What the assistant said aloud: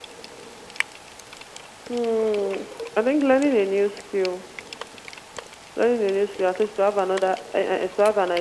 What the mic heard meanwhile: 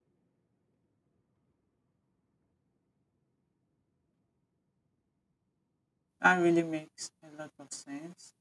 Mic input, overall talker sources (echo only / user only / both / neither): user only